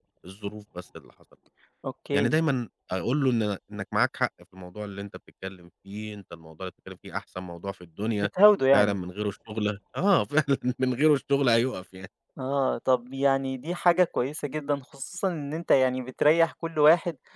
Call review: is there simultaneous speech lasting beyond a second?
No

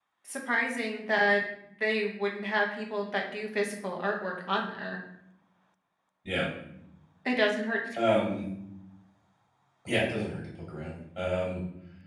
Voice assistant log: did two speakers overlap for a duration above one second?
No

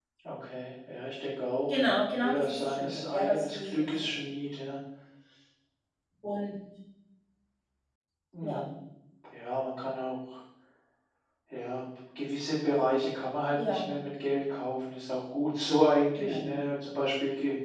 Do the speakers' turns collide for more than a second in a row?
Yes, from 1.7 s

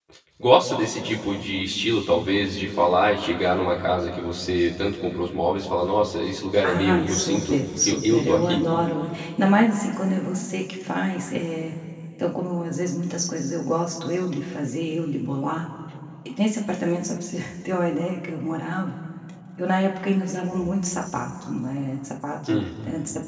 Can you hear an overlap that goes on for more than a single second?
Yes, from 6.6 s

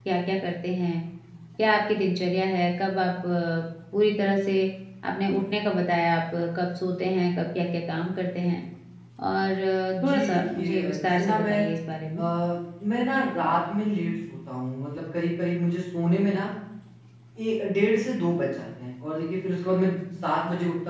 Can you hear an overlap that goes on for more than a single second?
Yes, from 9.9 s

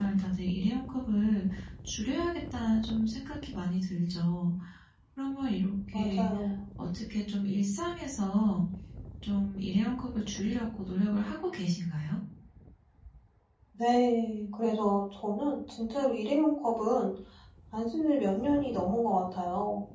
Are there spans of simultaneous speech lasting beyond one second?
No

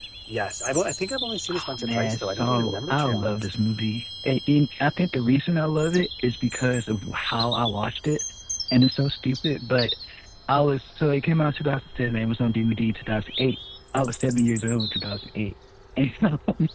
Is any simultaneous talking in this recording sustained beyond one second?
Yes, from 1.5 s

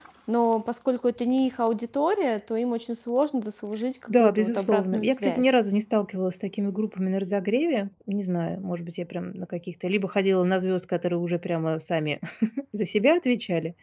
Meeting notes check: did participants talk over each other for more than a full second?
Yes, from 4.1 s

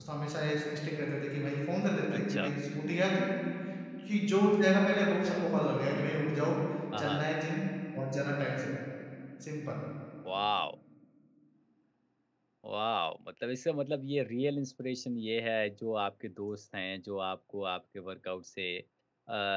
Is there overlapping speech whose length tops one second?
No

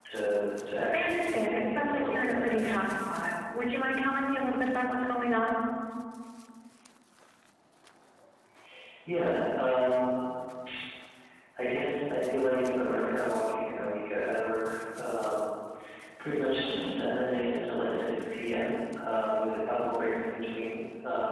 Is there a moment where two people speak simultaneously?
Yes, from 0.9 s

